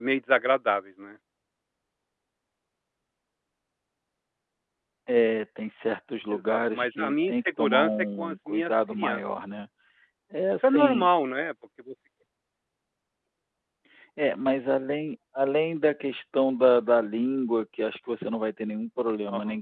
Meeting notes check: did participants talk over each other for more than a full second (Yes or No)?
Yes